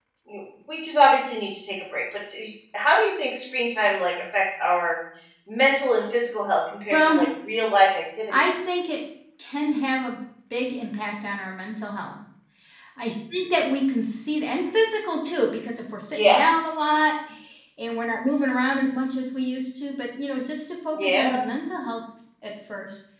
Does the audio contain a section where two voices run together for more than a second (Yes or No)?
No